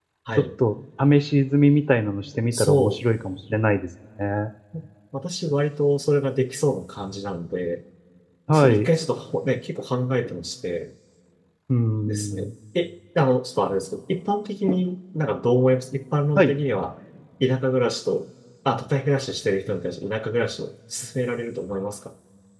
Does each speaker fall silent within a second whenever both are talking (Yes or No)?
Yes